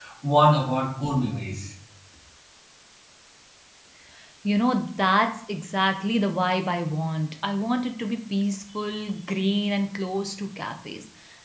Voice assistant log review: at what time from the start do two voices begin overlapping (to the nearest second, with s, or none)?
none